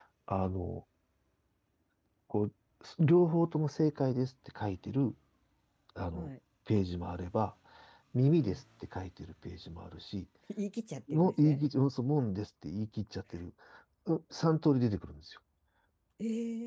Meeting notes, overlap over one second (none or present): none